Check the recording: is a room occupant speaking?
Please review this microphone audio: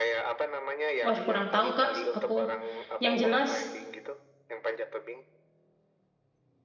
Yes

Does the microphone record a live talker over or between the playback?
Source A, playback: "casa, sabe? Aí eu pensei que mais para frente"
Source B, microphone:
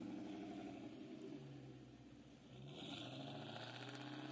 No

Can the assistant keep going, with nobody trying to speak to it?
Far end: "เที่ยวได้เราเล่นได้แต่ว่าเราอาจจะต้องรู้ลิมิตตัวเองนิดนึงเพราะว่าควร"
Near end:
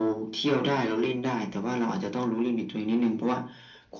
Yes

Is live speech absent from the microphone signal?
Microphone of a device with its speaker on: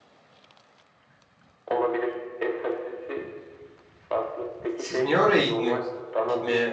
No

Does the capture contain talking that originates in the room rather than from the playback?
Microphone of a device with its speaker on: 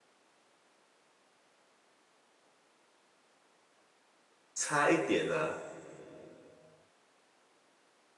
Yes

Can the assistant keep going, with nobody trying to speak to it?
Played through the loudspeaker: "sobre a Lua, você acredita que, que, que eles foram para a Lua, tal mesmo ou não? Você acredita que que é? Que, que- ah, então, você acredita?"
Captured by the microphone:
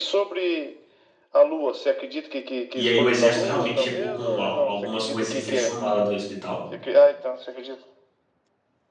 No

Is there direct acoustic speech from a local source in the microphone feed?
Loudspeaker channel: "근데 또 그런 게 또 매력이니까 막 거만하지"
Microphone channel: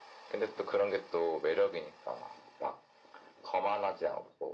No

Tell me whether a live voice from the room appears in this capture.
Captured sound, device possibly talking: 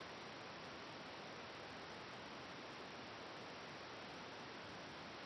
No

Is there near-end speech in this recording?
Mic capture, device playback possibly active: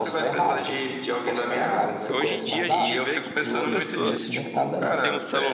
Yes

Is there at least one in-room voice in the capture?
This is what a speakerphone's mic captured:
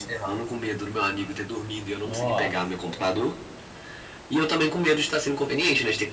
Yes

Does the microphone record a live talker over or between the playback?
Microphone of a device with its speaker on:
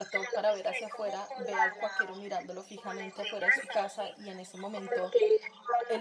Yes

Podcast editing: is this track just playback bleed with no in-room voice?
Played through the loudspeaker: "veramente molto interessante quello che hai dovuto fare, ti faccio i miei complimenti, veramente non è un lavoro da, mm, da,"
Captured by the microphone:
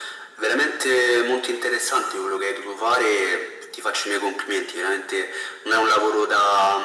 Yes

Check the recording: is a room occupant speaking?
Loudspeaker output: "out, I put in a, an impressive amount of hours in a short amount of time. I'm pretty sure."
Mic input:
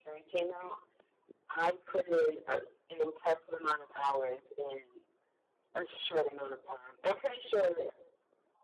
No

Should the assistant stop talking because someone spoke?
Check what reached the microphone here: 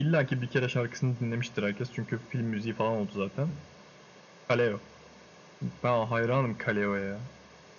No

